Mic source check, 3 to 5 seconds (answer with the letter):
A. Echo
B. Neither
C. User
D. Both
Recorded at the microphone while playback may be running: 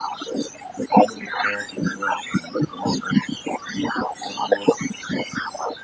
A